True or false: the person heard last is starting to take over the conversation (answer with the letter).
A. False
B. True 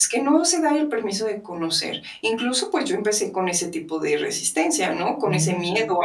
A